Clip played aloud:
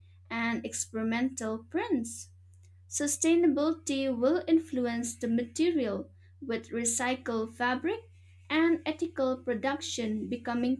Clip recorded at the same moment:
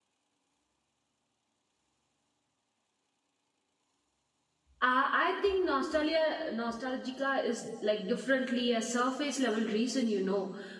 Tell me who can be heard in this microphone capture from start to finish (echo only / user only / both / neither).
user only